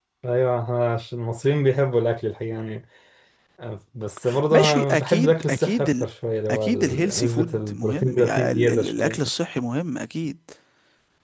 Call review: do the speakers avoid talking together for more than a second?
No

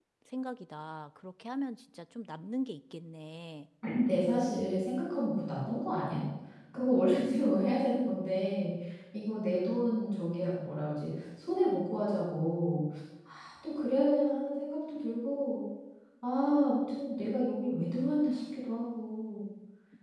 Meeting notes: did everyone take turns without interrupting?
Yes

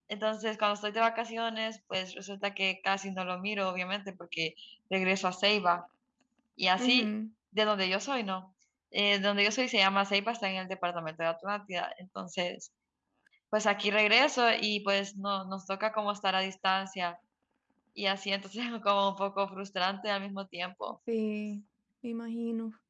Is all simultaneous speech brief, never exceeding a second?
Yes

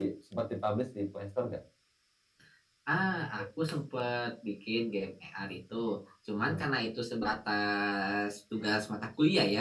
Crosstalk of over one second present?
No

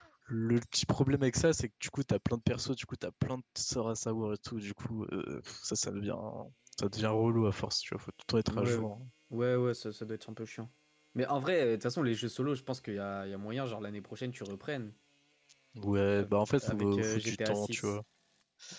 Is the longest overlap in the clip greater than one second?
Yes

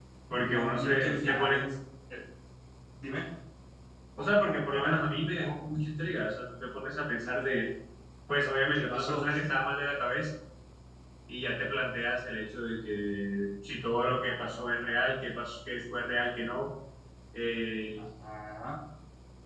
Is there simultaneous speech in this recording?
Yes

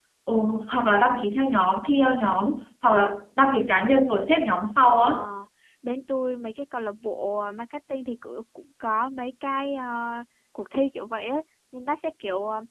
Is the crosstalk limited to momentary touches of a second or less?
Yes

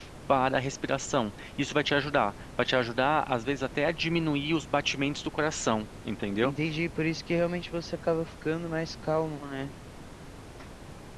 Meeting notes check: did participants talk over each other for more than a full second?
No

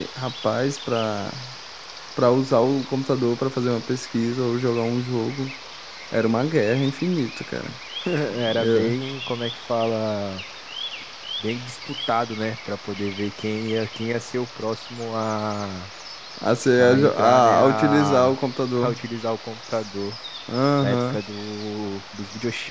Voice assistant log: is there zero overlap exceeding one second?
No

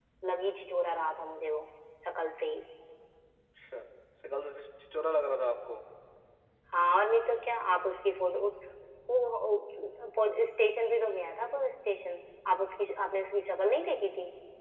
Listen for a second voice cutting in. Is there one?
No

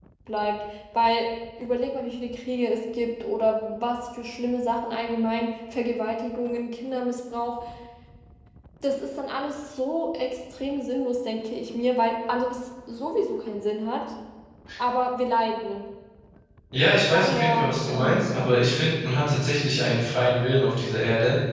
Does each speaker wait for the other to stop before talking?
No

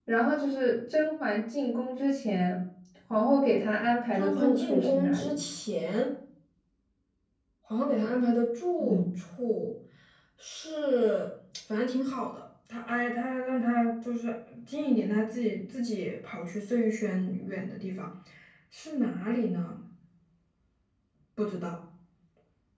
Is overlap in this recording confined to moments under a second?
No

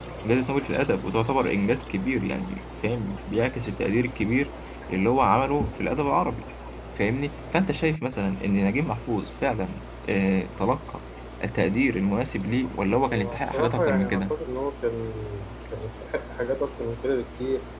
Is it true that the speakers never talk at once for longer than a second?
No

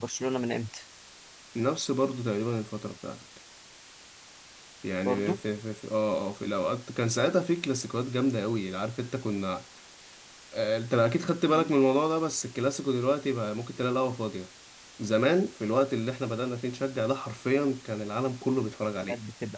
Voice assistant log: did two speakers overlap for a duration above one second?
No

